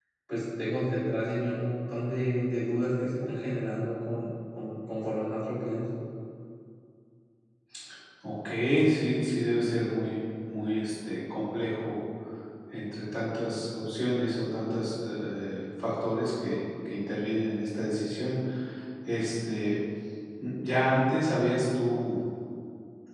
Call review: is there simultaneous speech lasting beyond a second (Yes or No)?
No